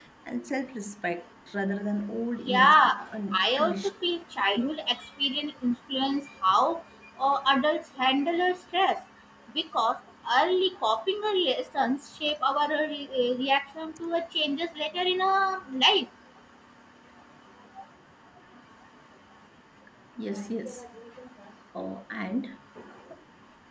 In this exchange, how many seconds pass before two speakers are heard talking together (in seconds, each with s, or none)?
2.4 s